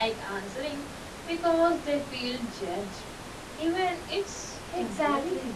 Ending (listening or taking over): taking over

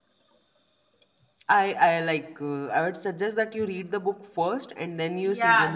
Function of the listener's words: taking over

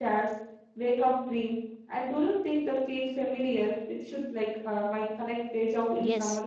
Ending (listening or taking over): taking over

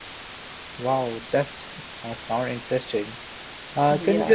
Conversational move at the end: listening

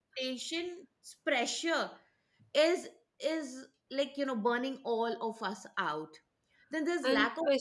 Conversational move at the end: taking over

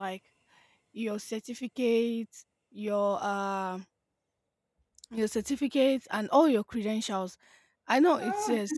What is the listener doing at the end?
listening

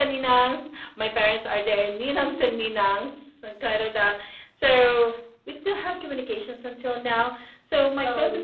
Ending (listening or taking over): listening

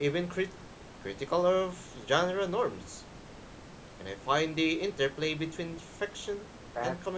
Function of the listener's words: taking over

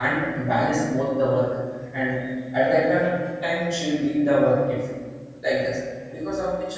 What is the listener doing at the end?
listening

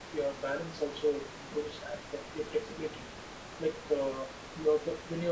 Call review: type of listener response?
listening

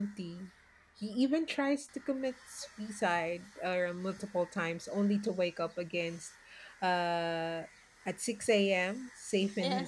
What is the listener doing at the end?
listening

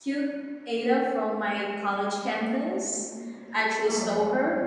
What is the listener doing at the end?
listening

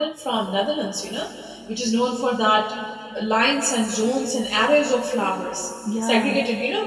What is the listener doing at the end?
listening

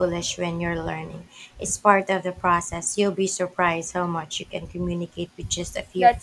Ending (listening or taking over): taking over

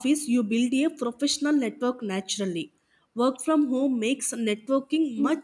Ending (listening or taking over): taking over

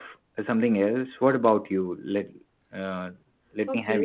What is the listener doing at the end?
taking over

